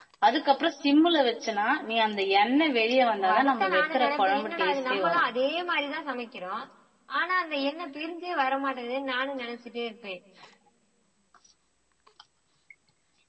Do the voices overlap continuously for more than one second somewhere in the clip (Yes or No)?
Yes